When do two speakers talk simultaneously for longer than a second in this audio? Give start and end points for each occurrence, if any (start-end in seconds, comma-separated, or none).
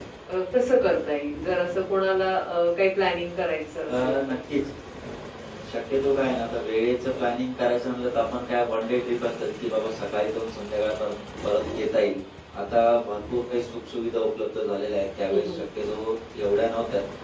none